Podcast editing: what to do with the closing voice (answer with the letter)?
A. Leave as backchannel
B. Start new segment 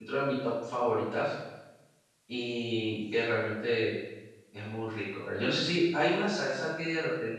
A